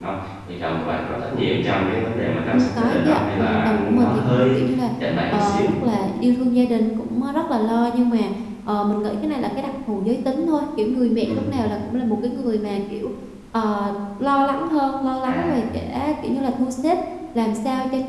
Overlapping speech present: Yes, from 2.5 s

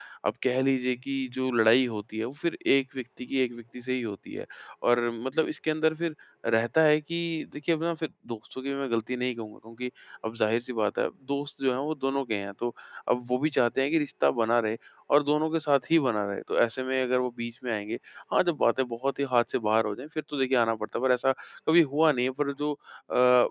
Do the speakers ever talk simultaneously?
No

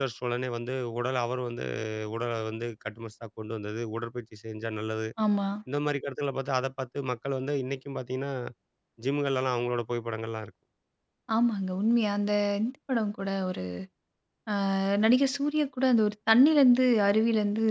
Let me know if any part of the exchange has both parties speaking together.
No

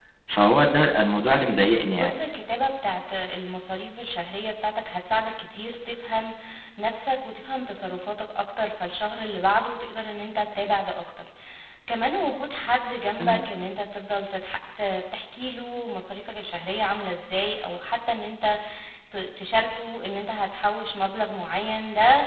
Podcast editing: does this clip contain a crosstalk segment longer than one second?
No

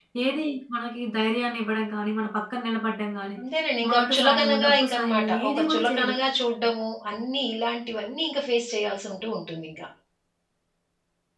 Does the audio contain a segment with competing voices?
Yes, from 3.9 s

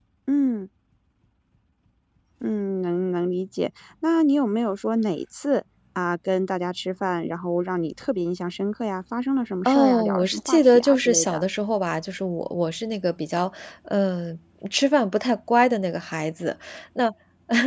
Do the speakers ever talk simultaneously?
Yes, from 9.7 s

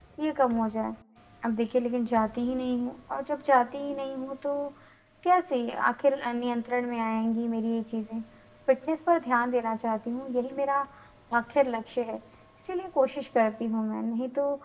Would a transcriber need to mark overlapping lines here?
No

